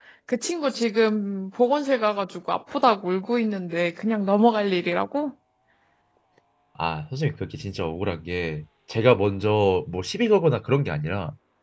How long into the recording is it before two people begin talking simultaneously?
none

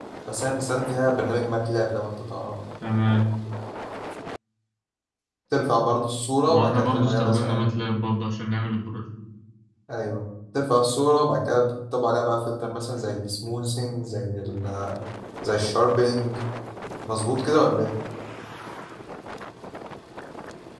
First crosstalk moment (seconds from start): 6 s

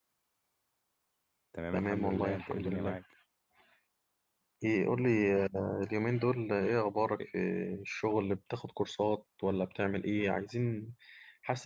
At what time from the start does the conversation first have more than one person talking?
2 s

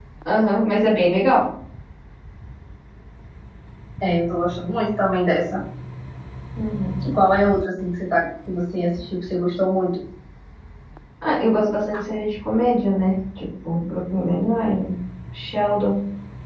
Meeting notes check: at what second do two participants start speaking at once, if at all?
none

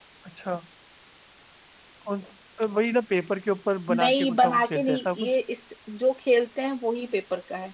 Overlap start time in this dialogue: 4 s

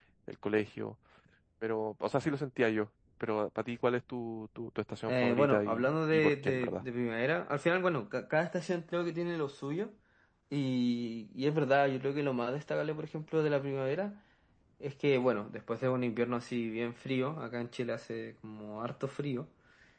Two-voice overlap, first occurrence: 5 s

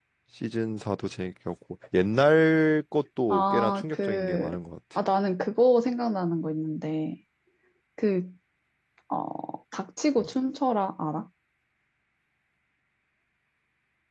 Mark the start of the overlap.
3 s

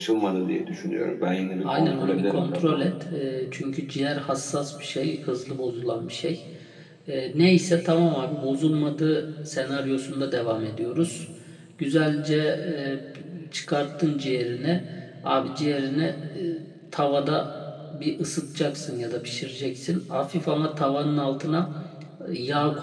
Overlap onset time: 2 s

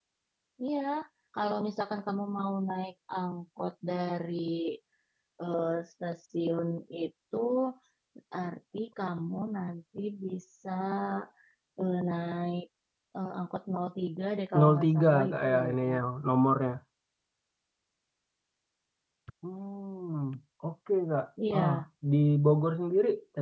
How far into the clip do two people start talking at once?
15 s

